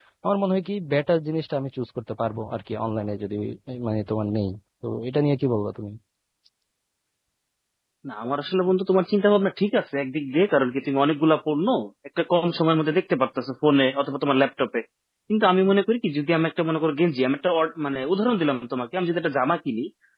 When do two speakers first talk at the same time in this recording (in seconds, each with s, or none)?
none